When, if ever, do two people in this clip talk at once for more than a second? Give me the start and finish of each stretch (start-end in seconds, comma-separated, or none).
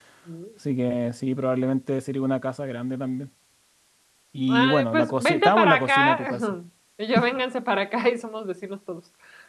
4.5-6.3